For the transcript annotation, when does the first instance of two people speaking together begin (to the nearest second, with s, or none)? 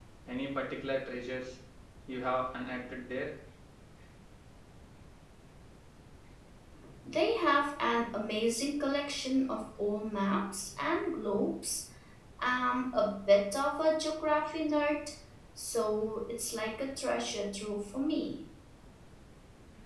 none